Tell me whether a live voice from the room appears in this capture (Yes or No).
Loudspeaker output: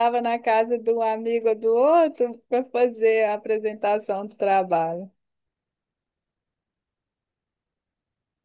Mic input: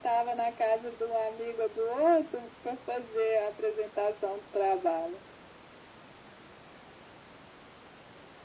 No